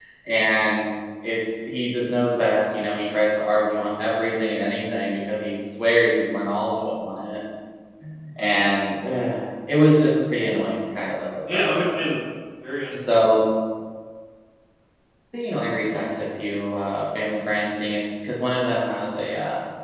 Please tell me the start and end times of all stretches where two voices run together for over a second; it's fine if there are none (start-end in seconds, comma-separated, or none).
none